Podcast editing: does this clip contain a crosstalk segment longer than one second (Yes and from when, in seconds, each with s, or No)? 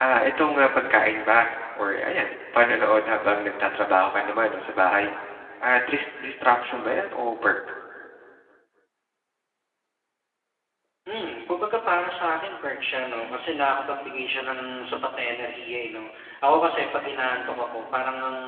No